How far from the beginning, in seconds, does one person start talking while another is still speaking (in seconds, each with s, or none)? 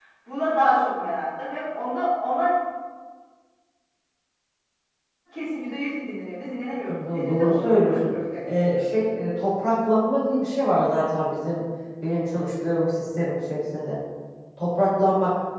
6.9 s